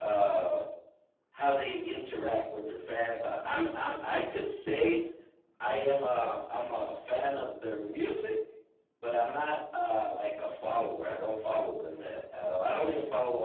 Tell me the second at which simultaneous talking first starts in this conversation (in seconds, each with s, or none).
none